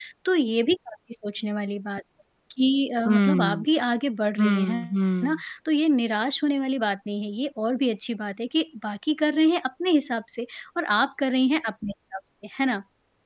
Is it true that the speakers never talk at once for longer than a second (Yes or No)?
Yes